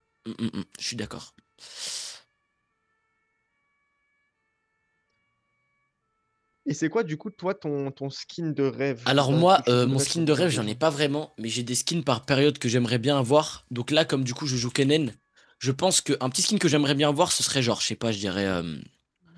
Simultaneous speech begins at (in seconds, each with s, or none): 9.1 s